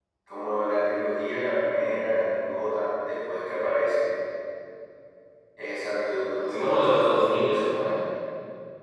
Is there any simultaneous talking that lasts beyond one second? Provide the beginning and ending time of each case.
6.4-8.0

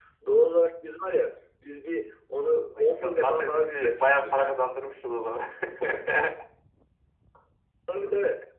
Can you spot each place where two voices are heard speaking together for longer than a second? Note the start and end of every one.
2.8-4.6

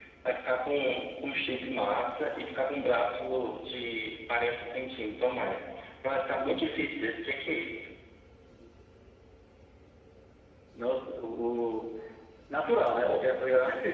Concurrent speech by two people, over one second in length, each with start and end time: none

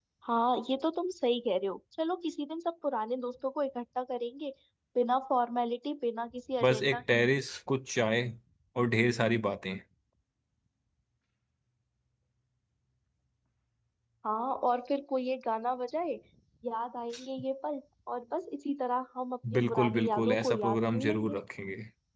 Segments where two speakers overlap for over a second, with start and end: 19.5-21.4

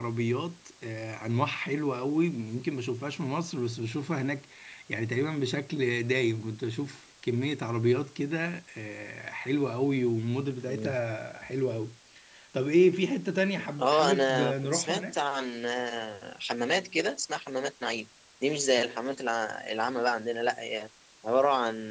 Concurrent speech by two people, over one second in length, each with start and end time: 13.8-15.1

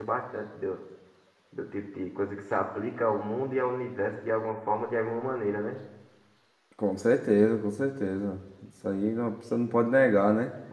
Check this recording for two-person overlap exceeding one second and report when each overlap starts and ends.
none

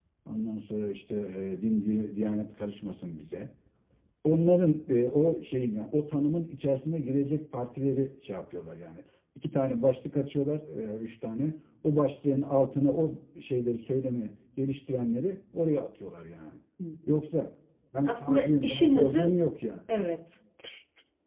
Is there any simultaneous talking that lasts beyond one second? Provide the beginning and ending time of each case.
18.1-19.3

